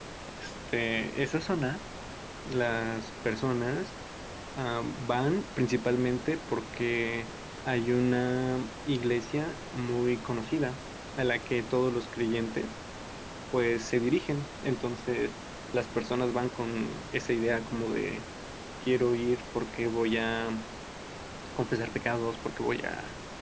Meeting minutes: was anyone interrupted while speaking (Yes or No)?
No